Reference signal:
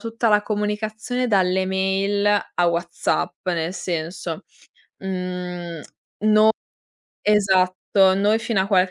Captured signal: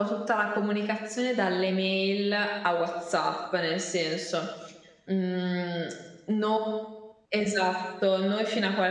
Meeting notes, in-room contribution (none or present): none